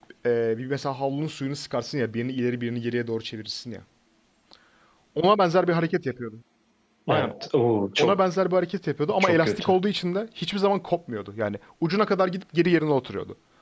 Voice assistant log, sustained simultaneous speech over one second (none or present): none